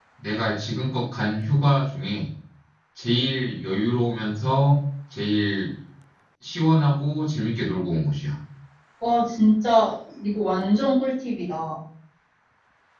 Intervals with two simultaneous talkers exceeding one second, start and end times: none

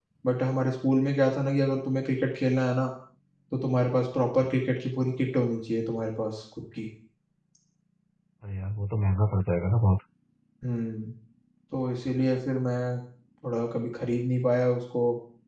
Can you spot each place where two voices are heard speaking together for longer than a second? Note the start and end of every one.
none

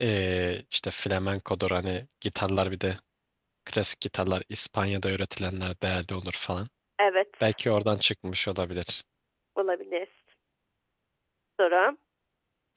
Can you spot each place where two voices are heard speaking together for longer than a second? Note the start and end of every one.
none

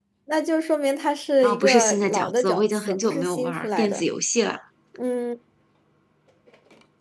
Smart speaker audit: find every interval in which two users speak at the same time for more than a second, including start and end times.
1.4-4.0

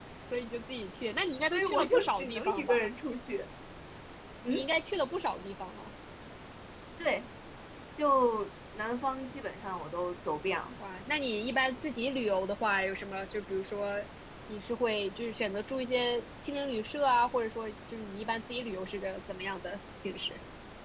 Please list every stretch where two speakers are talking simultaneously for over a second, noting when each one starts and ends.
1.5-2.9

